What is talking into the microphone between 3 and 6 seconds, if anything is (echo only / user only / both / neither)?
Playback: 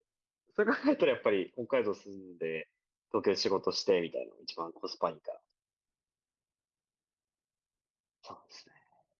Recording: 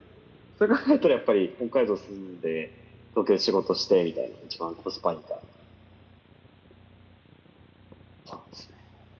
echo only